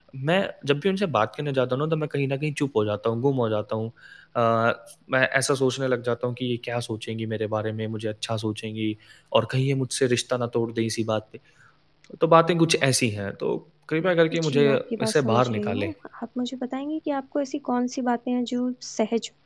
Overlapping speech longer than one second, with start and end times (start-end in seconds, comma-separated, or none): 14.3-15.9